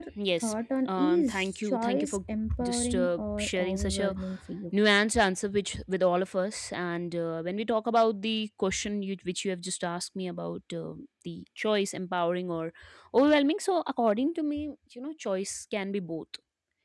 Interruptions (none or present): present